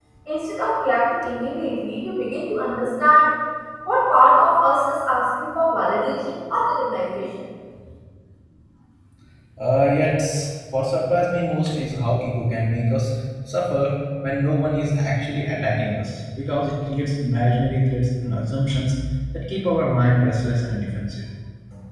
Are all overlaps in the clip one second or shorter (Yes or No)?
Yes